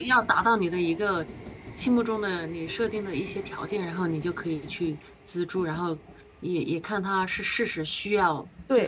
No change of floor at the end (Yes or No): No